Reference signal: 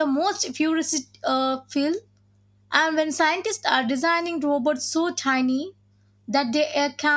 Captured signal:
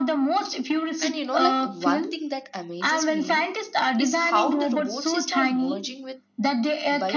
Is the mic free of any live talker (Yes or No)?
No